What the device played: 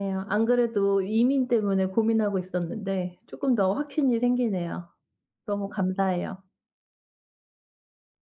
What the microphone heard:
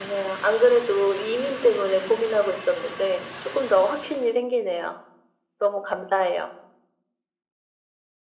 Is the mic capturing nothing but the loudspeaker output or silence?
Yes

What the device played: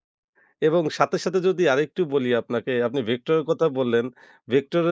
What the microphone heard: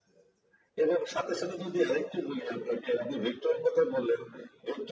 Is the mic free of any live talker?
Yes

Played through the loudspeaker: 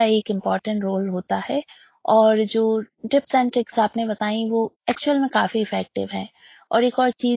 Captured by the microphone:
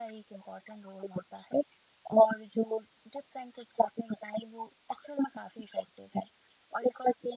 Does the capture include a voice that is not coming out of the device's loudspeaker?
No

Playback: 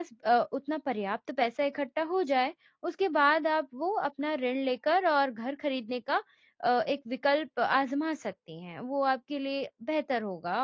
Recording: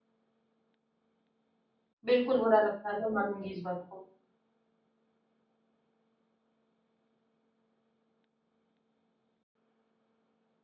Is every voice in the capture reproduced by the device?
No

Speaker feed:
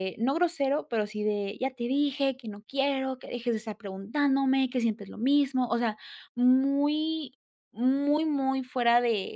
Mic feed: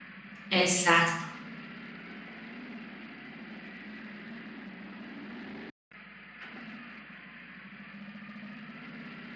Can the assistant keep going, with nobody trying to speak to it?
No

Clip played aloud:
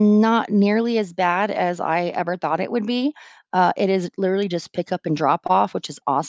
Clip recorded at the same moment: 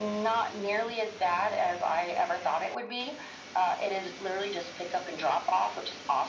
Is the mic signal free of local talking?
Yes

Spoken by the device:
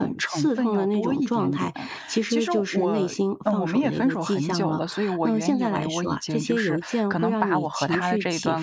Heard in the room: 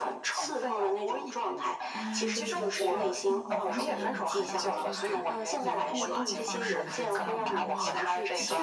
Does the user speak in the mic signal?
Yes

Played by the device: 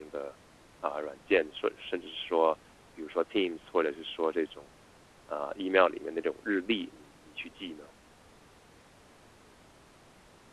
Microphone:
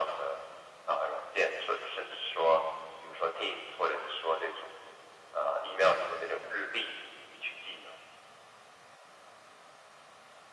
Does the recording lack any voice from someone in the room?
Yes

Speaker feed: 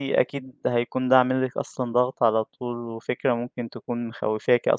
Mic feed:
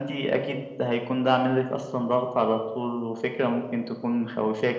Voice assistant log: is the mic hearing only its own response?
Yes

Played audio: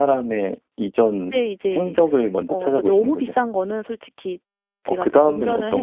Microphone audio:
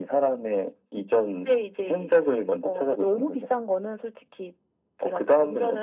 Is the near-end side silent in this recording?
Yes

